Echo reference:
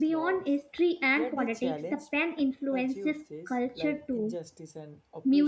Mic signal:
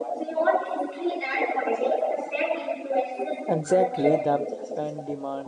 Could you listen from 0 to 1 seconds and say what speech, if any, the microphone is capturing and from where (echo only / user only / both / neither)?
echo only